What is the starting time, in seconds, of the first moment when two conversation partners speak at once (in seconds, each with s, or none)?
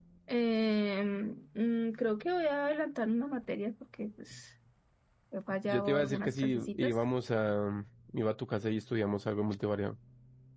5.7 s